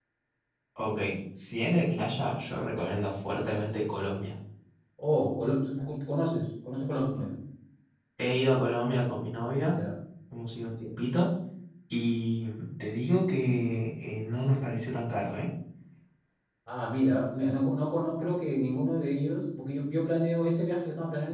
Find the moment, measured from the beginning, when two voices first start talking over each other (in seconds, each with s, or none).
none